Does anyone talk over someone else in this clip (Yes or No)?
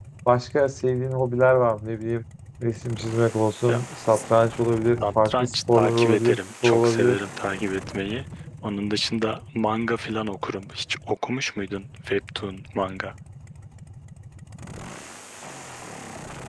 Yes